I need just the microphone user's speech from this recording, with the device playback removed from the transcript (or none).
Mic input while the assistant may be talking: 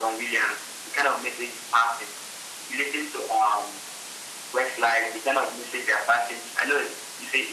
none